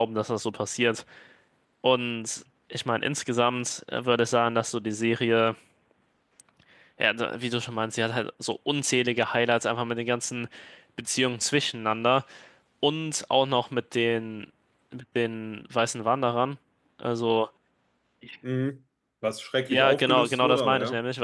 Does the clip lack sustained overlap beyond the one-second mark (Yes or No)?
No